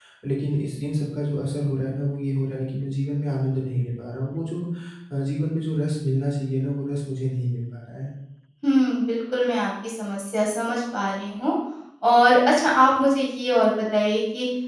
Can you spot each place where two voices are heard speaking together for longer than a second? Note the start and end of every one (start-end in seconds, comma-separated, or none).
none